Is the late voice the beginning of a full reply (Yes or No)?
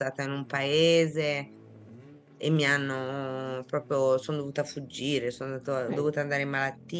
No